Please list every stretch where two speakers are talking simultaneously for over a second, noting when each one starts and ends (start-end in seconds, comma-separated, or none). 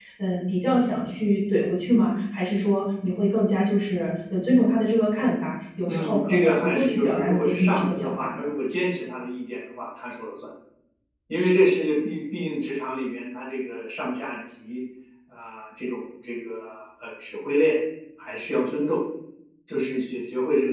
5.9-8.4